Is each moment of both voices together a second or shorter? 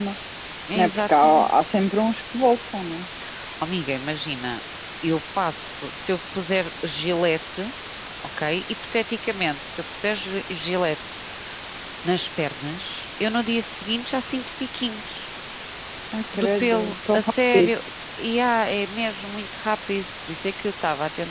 No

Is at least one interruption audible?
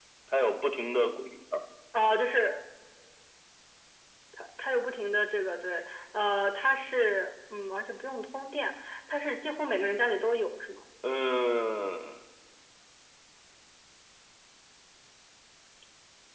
No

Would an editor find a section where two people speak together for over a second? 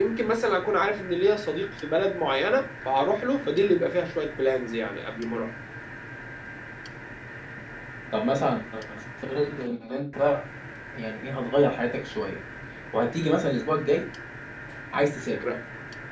No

